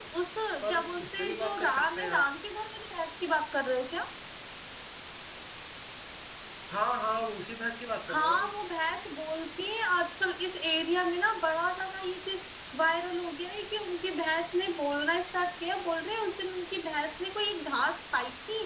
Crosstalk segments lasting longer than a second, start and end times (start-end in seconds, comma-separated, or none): 0.6-2.2